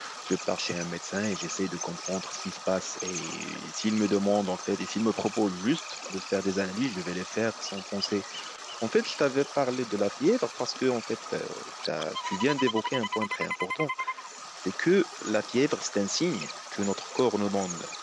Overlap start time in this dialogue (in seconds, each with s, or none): none